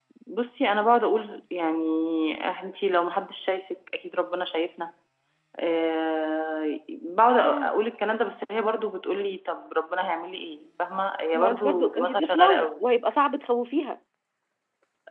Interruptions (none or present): present